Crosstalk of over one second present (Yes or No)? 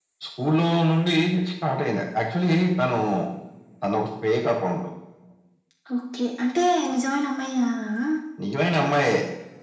No